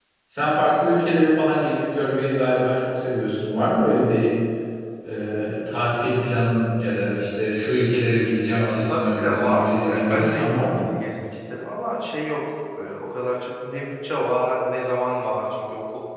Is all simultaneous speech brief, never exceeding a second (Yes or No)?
No